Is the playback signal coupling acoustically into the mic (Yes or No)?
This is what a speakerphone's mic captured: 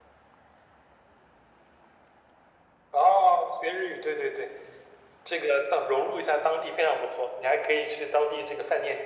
Yes